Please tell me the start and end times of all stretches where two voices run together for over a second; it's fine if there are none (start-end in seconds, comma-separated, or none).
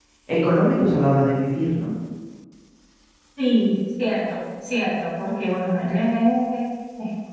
none